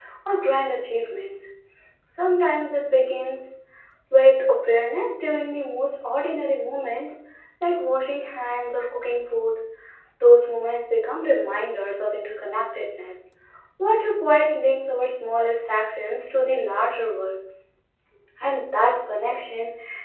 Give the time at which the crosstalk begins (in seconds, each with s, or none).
none